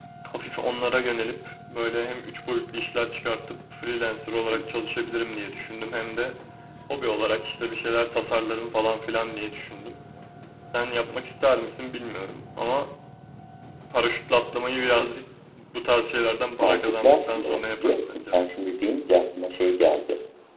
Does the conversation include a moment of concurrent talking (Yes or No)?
Yes